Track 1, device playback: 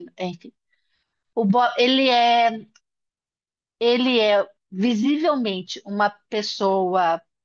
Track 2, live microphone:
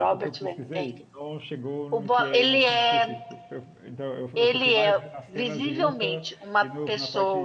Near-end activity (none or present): present